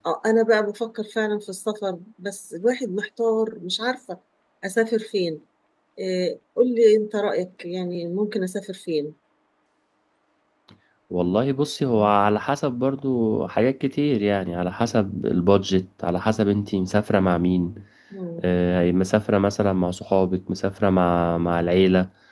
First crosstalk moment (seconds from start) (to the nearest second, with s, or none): none